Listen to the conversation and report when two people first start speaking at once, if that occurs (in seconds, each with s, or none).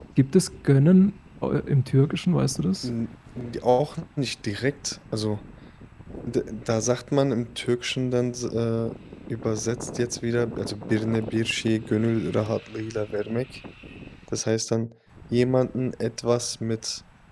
none